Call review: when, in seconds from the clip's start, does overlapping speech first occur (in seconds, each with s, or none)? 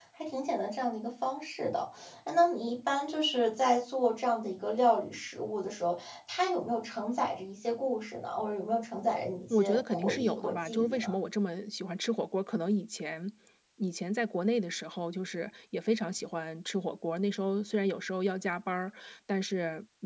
9.5 s